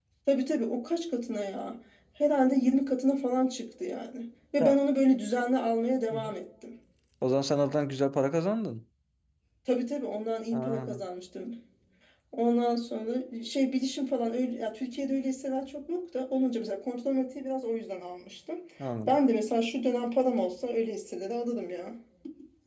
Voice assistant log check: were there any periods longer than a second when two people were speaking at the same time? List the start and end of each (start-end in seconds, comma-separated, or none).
none